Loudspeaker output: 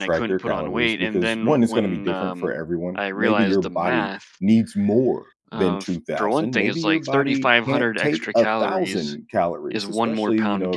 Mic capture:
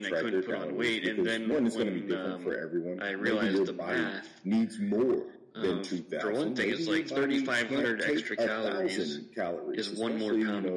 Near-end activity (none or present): none